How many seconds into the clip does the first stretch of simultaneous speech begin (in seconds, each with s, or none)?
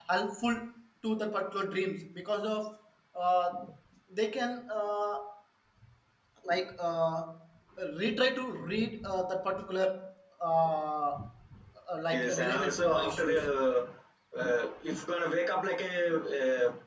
12.1 s